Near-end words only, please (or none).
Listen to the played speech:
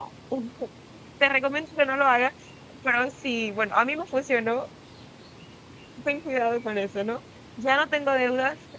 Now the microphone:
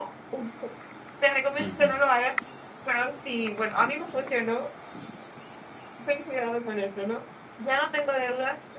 Ujú.